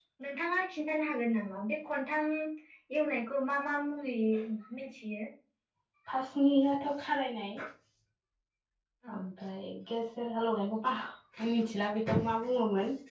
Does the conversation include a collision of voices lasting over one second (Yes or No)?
No